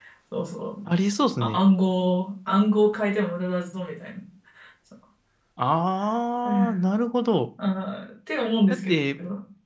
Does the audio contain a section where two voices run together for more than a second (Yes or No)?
No